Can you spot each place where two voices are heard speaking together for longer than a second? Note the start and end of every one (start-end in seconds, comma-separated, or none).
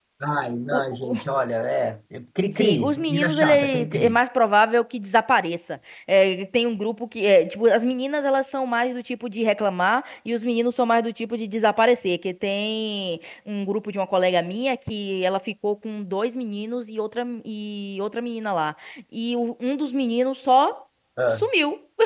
2.6-4.2